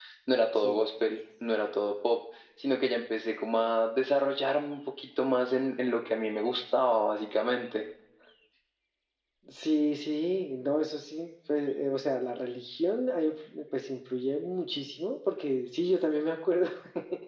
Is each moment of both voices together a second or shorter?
Yes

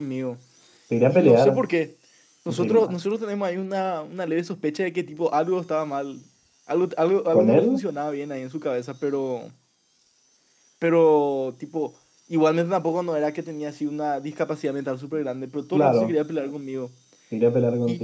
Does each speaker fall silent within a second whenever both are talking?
Yes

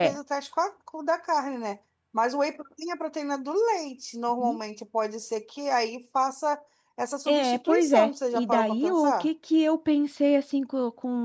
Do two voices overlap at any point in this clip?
Yes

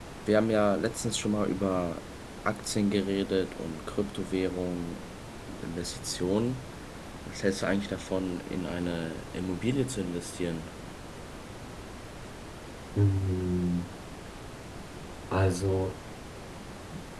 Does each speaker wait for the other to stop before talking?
Yes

